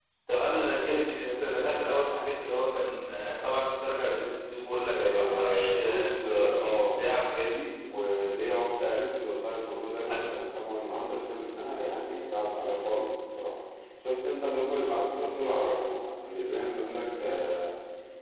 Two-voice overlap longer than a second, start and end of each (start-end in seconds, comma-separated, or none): 4.9-7.0